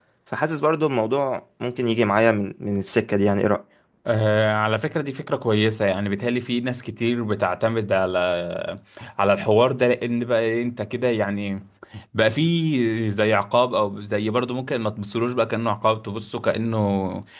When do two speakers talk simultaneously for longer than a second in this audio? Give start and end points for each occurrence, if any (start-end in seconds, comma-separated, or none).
none